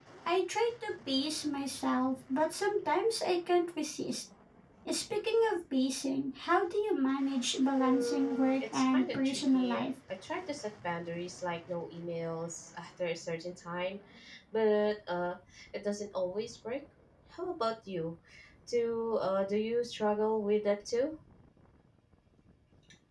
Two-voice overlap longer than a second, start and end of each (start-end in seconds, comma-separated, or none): 7.8-9.9